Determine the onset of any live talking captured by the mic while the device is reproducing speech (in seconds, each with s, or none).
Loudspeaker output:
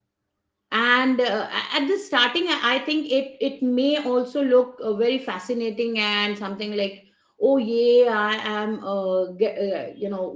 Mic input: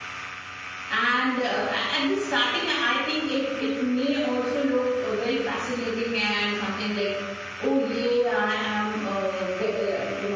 none